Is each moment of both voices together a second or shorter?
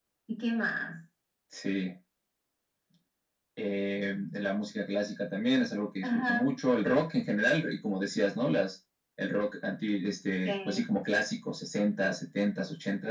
Yes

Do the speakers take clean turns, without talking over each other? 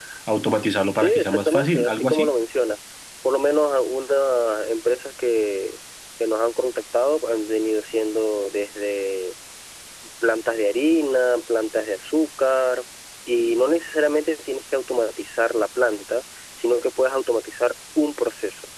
No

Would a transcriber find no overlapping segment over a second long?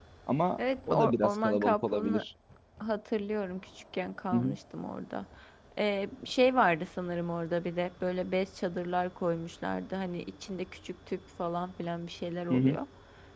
No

